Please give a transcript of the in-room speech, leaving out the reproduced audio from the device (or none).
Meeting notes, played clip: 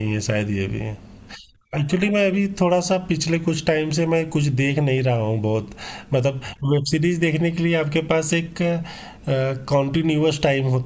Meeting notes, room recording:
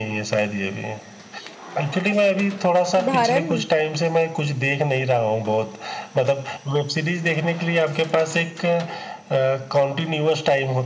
उदाहरण